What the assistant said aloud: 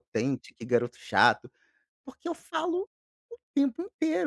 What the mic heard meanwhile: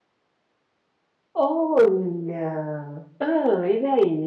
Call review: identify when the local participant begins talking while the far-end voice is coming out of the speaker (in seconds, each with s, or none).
1.3 s